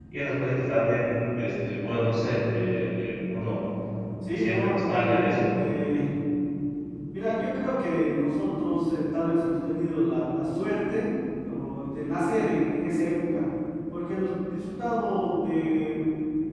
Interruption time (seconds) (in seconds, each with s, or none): 4.3 s